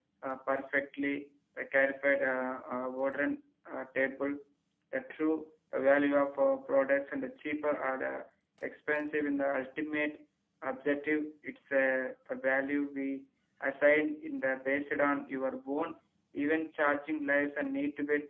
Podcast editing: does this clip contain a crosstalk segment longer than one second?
No

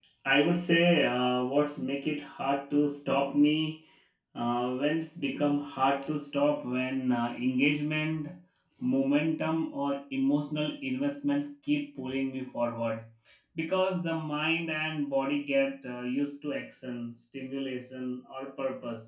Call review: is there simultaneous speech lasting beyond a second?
No

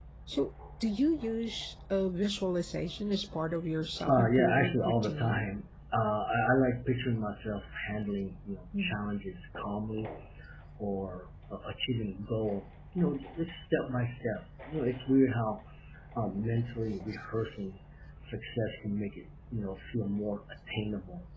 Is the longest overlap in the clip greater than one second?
Yes, from 4.0 s

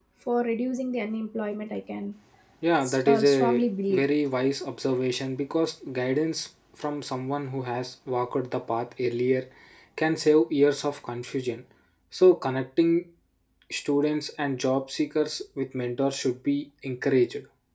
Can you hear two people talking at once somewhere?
Yes, from 2.8 s

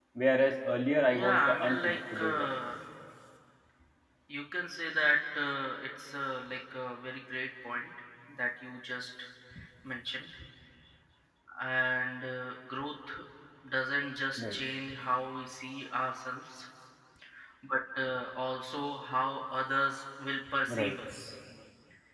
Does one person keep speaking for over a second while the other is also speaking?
Yes, from 1.1 s

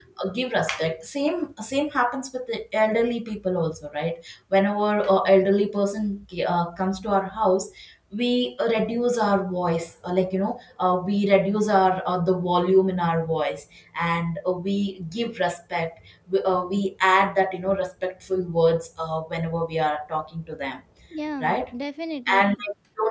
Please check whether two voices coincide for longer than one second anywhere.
No

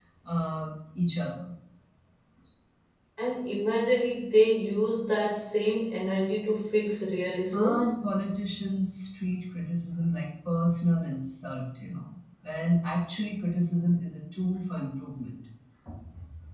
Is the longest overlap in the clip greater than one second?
No

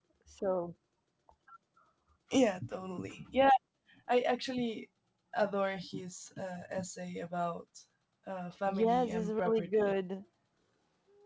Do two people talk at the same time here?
Yes, from 8.7 s

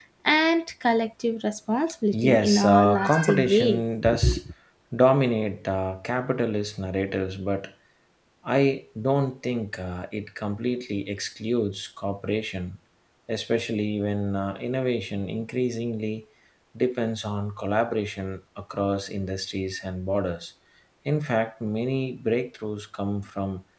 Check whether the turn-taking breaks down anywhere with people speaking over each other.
Yes, from 2.3 s

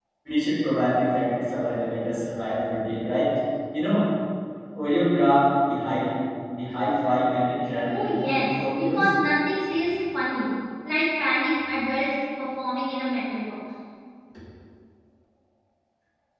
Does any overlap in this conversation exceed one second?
Yes, from 7.8 s

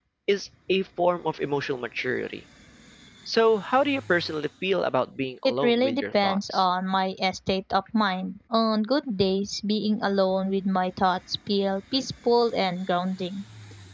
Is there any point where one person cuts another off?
Yes, from 5.5 s

